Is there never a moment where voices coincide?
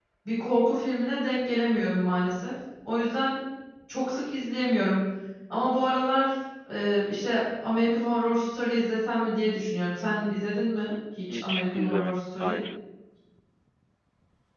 No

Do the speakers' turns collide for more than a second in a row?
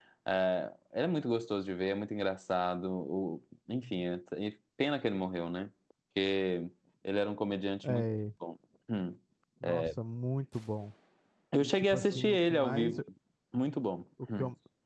Yes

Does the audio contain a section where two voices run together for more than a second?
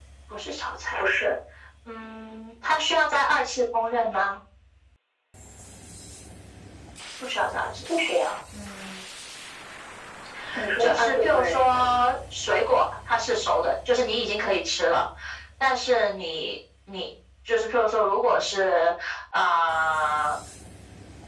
Yes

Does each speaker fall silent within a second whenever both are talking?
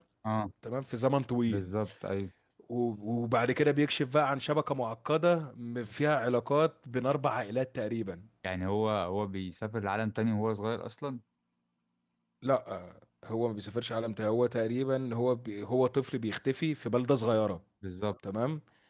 Yes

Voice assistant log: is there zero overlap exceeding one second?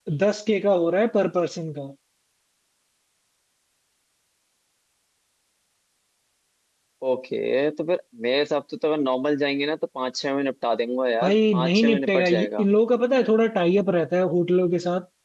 No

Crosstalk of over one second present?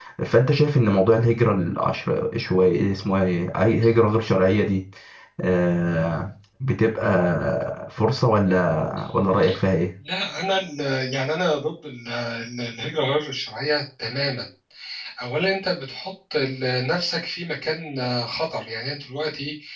No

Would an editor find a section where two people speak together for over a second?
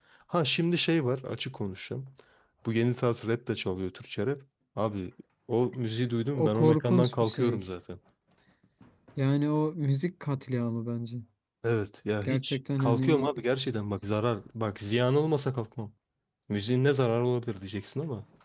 Yes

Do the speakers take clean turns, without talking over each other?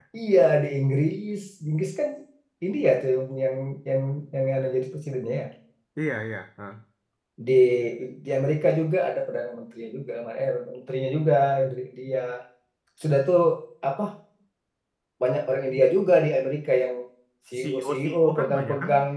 No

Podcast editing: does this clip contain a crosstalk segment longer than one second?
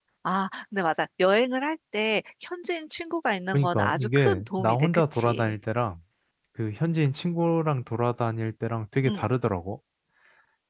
Yes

